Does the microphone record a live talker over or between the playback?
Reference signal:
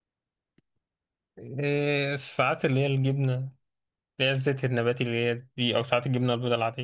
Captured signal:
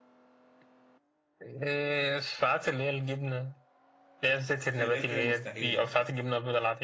Yes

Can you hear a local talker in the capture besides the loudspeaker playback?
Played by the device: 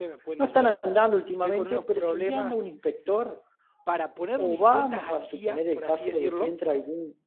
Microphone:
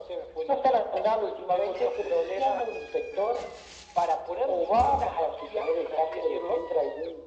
No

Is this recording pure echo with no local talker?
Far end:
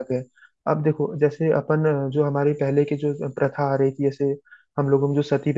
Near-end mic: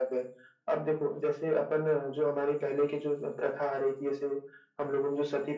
Yes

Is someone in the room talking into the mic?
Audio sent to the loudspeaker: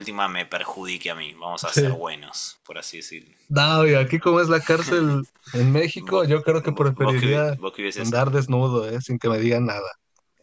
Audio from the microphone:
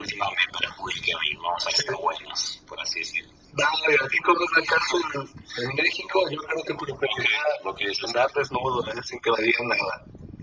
No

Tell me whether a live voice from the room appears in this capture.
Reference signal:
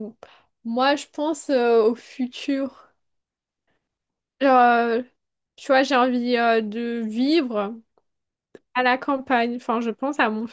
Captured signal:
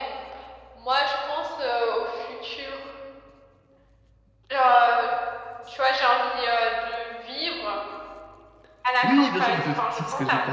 Yes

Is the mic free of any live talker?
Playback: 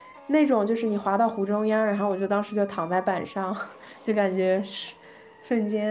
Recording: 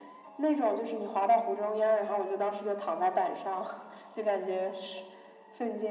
Yes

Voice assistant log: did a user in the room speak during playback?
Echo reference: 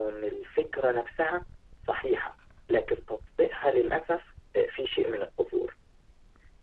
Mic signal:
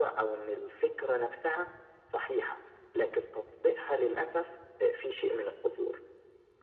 No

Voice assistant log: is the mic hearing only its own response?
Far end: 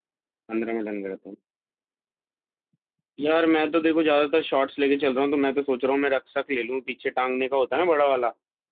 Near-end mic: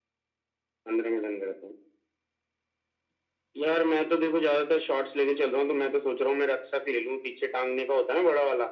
Yes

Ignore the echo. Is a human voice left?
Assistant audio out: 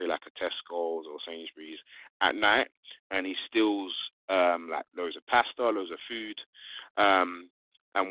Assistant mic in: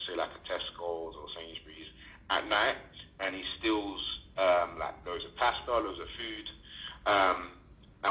No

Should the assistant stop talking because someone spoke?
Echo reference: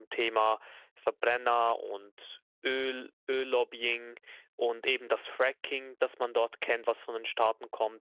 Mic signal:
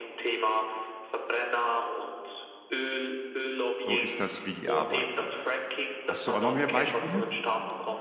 Yes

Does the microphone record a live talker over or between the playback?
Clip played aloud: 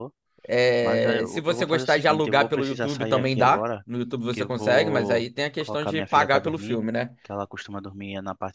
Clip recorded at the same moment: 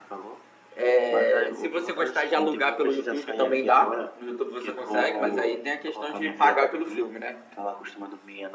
No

